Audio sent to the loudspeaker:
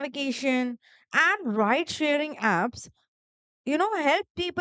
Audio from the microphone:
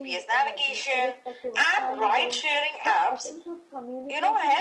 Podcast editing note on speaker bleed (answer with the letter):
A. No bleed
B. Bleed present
B